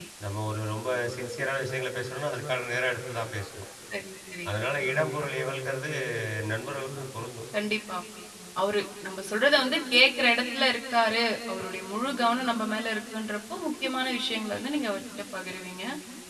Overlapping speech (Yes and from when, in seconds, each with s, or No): No